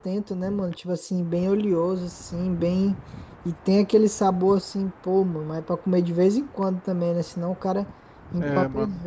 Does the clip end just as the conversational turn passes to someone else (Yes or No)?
Yes